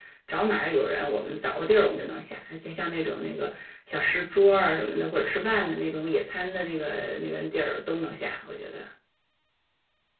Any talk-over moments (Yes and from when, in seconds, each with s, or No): No